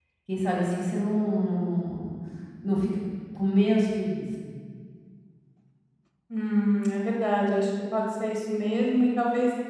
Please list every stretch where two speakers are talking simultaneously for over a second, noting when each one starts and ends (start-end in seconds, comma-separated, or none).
none